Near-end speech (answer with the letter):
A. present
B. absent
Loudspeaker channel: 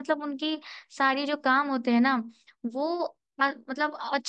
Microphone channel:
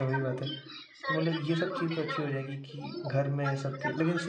A